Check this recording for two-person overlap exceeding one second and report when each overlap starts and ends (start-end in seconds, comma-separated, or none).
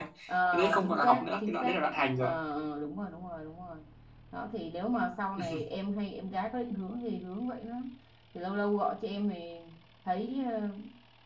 0.5-1.8